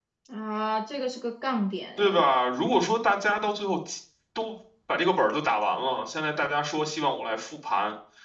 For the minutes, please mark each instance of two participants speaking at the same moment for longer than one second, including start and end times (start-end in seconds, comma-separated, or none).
none